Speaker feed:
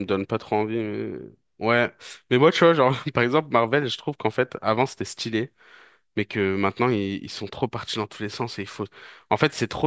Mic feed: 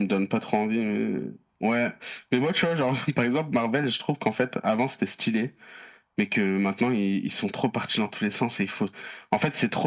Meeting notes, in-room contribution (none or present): none